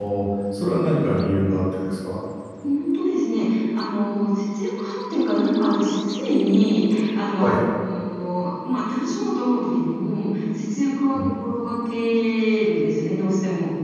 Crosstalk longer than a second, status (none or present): none